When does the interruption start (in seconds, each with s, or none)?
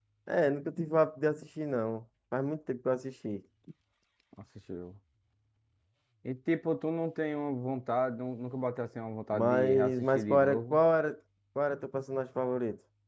9.3 s